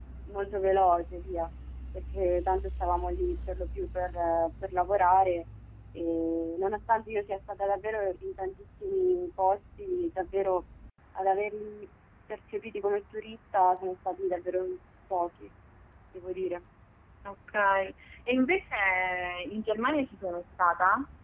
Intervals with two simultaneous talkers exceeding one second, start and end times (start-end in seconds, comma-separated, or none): none